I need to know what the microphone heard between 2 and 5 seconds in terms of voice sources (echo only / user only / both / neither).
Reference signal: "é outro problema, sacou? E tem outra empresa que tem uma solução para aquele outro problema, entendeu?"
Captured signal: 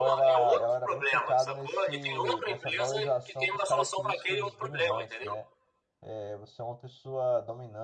both